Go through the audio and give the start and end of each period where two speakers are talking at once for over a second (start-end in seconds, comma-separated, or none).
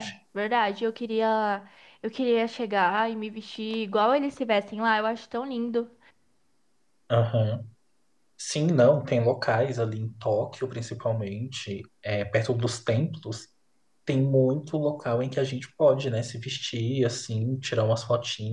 none